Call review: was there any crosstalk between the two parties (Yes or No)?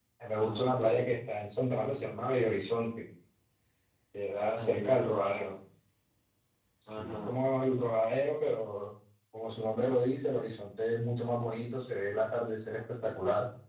Yes